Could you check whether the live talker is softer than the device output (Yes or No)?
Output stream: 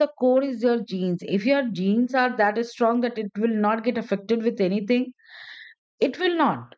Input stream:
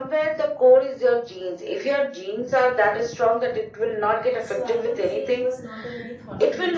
Yes